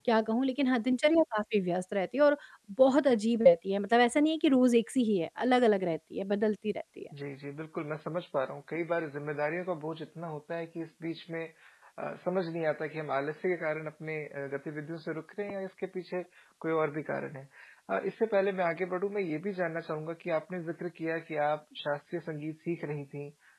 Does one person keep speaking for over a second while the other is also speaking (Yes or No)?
No